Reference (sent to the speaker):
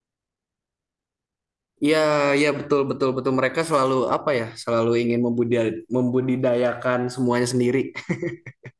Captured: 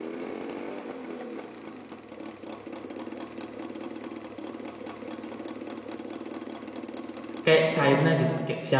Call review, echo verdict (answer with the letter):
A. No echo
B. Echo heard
A